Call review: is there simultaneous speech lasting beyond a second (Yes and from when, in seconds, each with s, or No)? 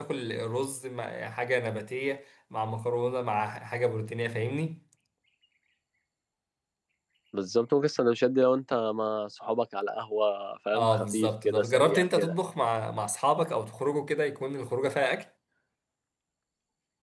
Yes, from 10.7 s